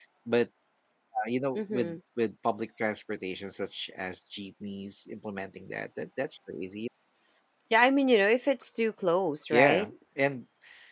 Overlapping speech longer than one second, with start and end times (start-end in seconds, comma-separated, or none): none